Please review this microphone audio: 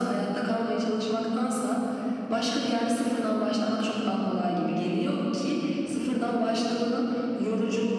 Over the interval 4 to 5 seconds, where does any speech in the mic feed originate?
echo only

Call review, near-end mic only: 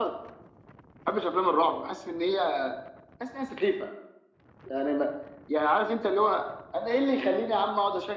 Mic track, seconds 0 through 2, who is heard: echo only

